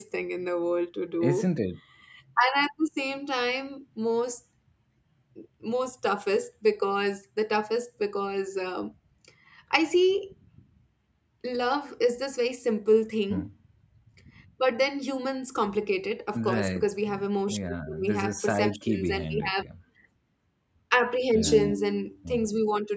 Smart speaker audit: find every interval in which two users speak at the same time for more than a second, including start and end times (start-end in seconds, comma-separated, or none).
17.5-19.6